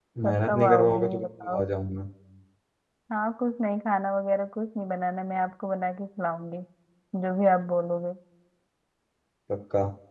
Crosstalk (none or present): present